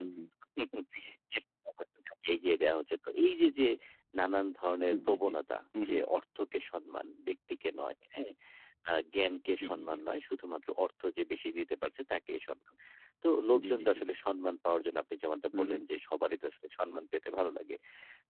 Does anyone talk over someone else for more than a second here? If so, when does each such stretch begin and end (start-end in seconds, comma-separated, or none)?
none